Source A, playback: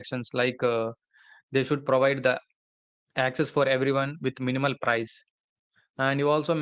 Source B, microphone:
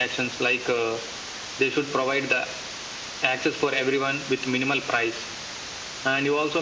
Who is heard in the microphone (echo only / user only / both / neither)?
echo only